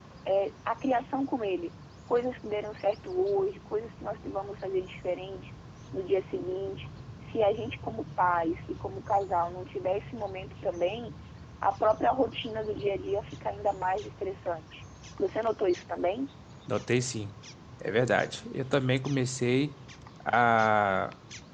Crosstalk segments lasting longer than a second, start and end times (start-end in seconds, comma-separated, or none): none